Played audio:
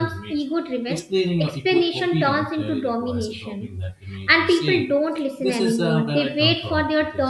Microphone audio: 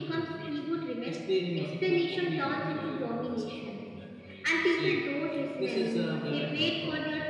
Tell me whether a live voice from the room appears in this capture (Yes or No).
No